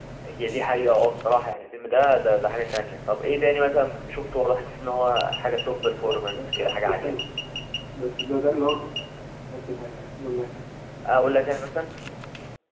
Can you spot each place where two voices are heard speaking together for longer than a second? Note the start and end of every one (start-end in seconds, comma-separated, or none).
5.4-7.1